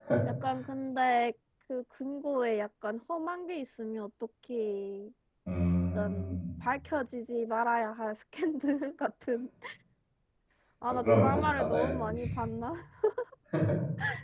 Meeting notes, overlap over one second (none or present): present